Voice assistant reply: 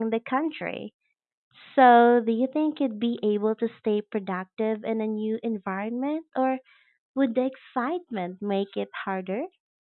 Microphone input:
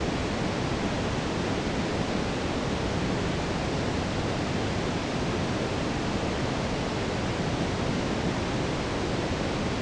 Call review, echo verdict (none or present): none